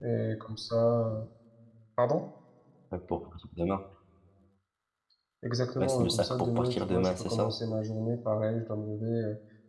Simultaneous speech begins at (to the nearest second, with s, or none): 6 s